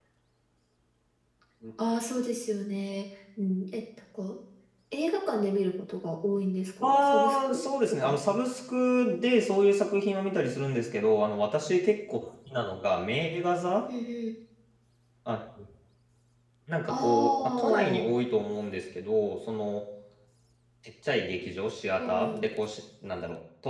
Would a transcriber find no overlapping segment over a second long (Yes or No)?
No